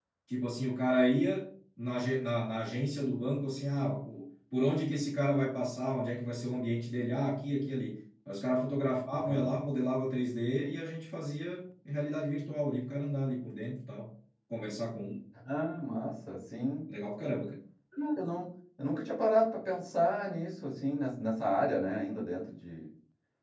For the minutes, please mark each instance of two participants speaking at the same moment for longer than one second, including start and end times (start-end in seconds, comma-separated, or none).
none